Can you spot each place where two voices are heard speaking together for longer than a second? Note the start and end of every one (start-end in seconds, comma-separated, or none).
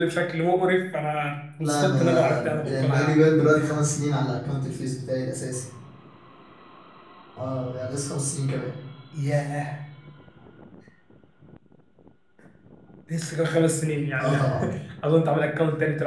1.6-3.2